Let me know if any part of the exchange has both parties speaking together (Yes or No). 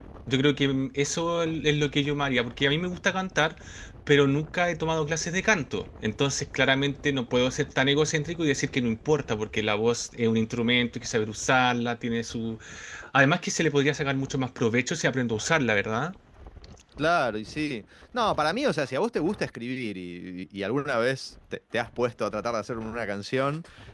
No